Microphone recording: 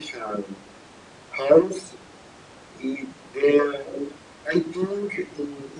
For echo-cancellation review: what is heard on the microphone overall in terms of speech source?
echo only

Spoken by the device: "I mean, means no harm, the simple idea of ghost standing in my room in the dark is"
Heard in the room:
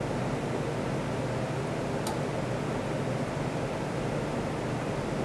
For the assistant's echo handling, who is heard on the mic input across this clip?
neither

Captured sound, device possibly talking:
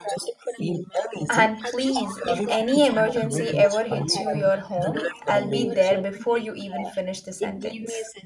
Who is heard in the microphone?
both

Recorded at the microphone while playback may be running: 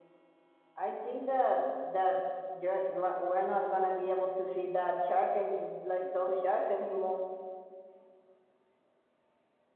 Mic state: echo only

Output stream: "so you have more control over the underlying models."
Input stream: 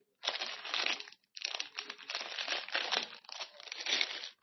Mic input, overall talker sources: neither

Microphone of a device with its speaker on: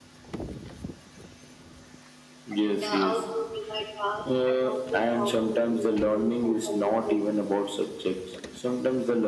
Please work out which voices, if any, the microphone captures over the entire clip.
both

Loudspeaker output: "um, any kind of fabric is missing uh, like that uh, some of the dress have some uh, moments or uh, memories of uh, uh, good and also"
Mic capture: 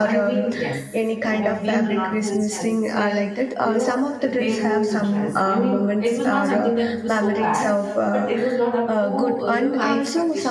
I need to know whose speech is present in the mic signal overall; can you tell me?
both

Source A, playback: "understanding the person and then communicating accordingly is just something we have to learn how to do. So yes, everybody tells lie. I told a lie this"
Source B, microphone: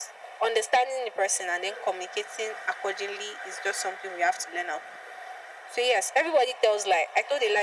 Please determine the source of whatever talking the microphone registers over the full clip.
echo only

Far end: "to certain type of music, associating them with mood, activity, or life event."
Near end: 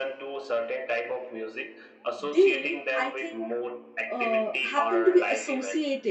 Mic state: both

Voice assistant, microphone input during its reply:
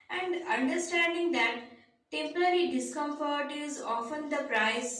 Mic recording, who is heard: user only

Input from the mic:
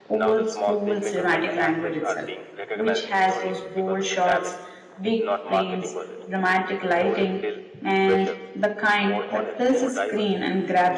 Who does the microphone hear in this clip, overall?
both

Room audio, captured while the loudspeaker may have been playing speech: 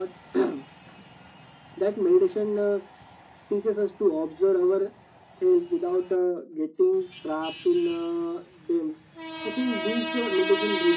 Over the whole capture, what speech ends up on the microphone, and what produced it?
echo only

